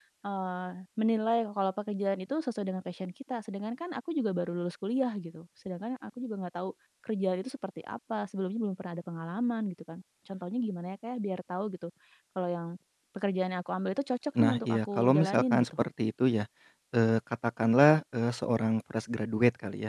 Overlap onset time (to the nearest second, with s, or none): 14 s